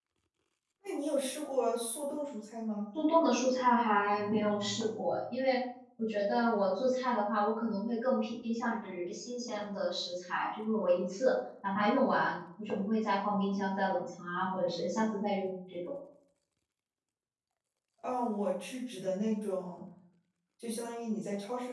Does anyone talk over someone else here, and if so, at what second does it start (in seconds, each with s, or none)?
none